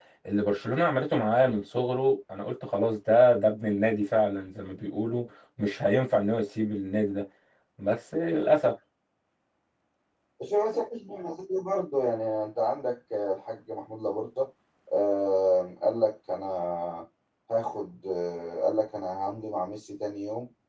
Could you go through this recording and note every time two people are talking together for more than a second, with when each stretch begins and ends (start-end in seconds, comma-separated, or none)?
none